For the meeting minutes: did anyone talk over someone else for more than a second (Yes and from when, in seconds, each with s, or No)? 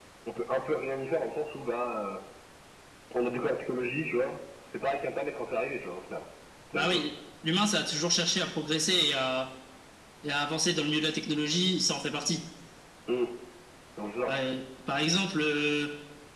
No